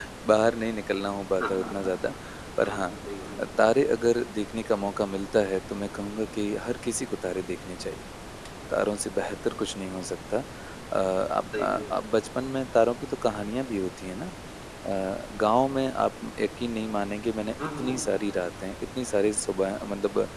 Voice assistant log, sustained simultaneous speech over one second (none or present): none